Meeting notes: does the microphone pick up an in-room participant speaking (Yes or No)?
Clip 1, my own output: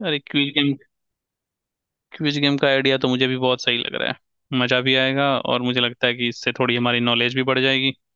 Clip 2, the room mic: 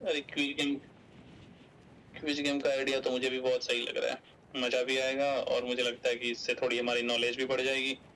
No